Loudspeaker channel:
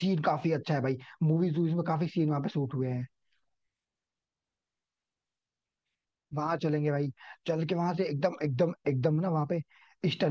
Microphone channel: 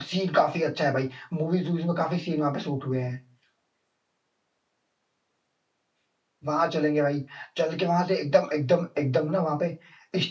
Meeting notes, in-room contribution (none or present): none